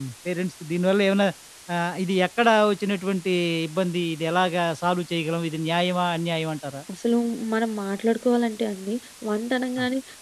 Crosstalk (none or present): none